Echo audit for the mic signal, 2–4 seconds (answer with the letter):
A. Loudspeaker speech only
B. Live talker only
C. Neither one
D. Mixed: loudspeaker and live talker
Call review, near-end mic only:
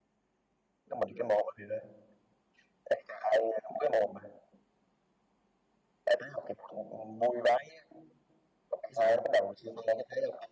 A